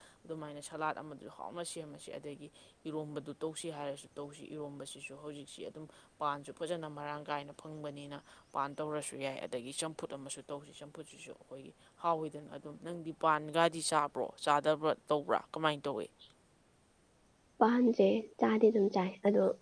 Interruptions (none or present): none